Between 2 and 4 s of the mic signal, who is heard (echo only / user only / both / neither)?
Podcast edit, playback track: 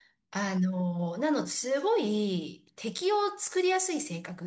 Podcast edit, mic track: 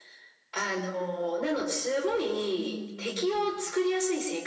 both